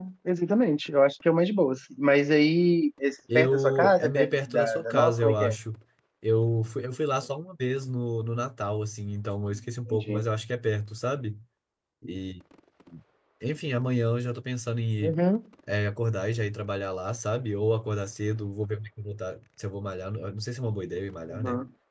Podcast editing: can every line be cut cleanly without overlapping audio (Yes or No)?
No